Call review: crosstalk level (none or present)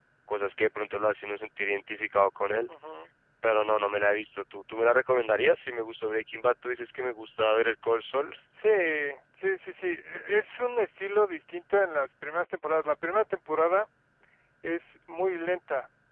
none